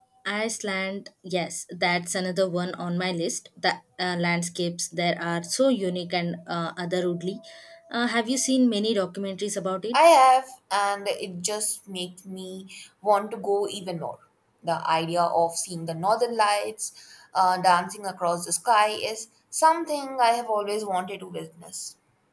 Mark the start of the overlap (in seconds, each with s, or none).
none